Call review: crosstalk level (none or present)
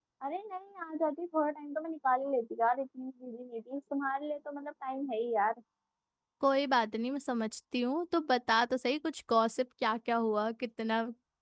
none